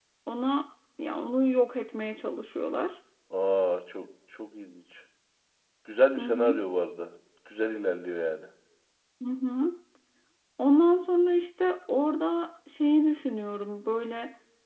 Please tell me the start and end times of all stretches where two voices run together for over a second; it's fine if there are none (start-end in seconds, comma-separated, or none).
none